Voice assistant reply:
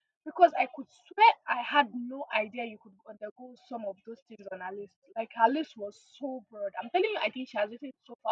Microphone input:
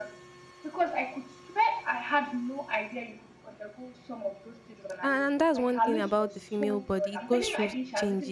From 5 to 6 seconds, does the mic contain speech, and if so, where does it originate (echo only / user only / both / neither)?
both